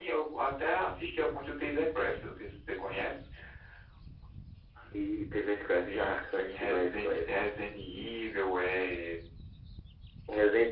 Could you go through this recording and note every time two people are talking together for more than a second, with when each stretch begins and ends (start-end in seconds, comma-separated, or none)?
5.9-7.3